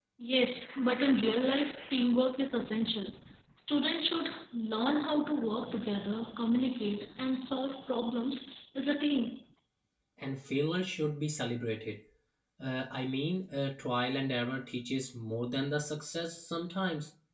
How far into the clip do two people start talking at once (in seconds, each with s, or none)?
none